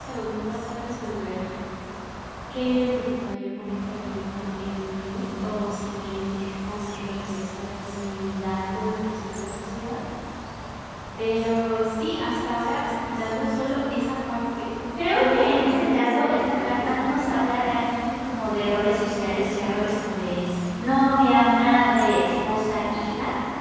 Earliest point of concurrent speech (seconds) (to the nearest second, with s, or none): 15 s